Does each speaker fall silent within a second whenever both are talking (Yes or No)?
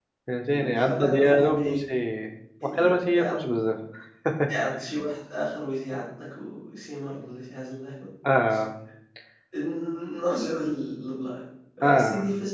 No